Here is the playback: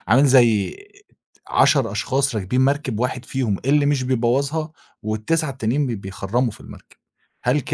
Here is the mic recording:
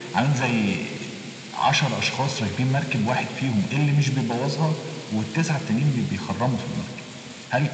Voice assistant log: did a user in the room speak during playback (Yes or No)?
No